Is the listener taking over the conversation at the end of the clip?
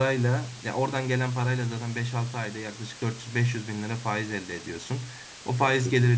No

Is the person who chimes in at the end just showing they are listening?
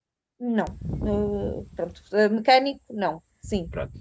No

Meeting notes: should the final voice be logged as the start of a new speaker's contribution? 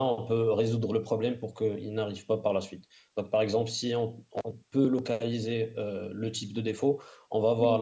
No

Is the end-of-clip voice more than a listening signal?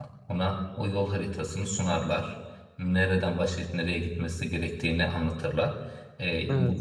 No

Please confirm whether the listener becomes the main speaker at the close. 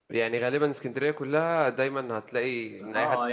Yes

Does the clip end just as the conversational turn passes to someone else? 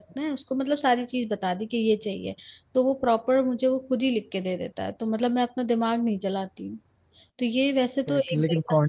Yes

